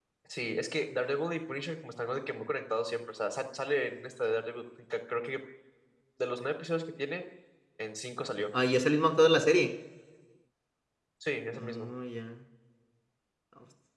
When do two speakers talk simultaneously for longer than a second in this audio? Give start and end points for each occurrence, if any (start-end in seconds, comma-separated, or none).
none